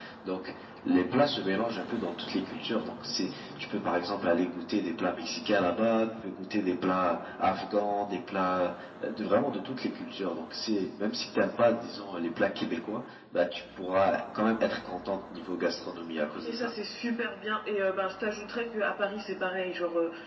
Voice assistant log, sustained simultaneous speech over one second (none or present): none